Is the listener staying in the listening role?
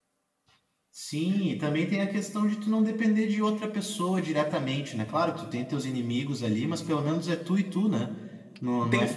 No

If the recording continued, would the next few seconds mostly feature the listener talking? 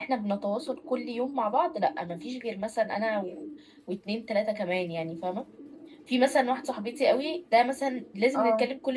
No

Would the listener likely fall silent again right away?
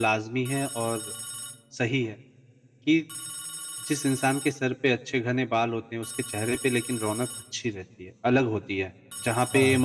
Yes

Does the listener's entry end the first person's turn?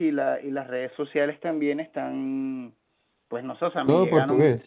No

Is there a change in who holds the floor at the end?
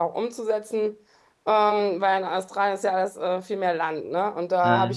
No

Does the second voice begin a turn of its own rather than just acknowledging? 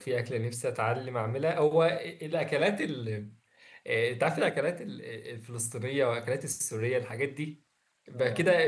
No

